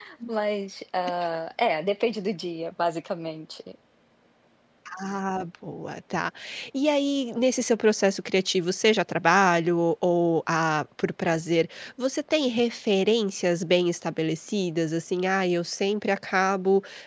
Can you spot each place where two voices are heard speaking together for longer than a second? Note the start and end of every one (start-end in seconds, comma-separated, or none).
none